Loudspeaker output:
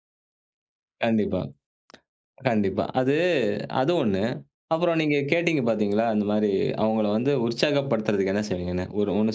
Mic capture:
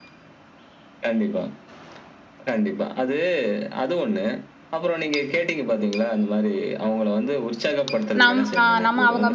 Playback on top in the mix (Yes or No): No